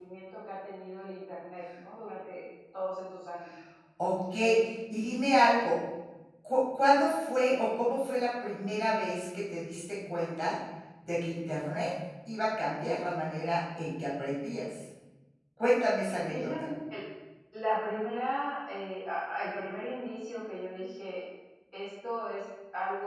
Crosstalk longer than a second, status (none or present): none